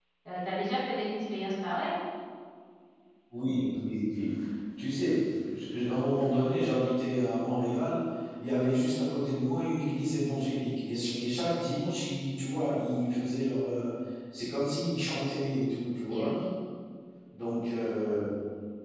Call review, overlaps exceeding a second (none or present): none